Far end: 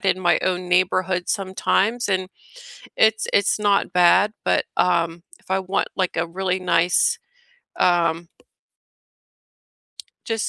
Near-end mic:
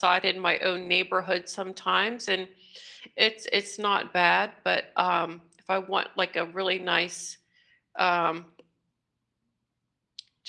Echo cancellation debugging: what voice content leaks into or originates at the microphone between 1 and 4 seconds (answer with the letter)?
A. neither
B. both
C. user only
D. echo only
D